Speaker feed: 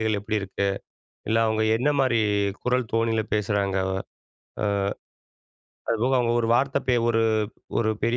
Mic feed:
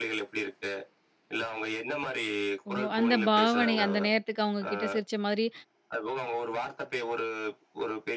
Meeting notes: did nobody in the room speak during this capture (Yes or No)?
No